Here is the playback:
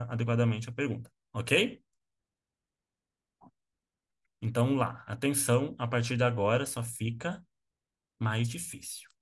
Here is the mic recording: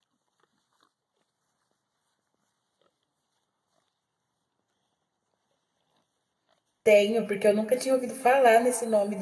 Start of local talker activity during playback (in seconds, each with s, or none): 6.8 s